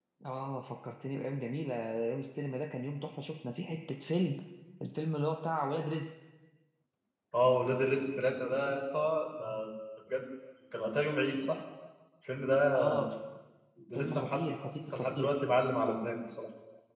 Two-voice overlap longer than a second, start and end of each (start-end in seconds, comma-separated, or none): none